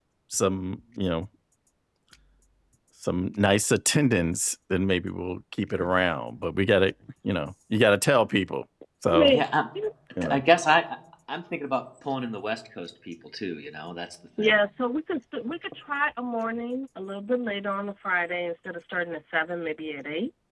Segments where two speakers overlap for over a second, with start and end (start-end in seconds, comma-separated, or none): none